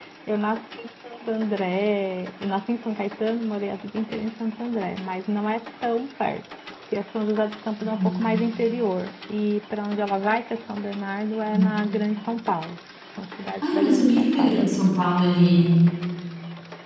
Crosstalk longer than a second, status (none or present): present